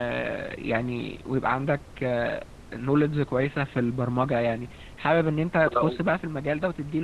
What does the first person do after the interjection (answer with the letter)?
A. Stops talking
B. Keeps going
B